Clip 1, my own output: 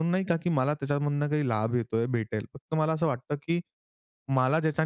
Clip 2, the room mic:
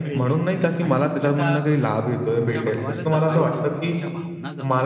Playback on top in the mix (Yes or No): Yes